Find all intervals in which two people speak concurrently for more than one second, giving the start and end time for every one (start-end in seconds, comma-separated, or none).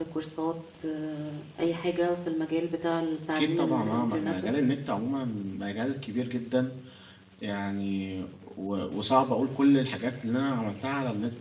3.3-4.5